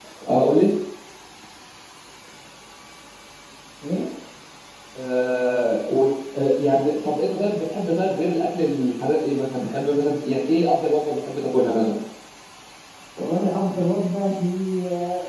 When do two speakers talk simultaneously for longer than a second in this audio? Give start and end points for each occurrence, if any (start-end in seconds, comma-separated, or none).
none